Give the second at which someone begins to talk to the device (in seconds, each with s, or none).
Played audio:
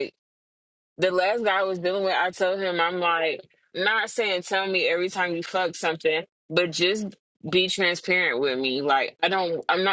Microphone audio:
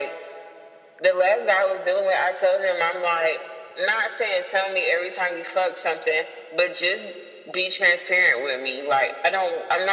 none